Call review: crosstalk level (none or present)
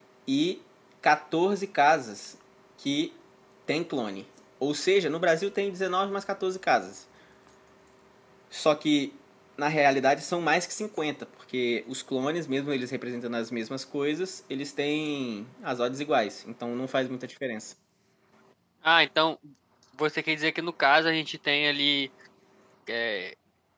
none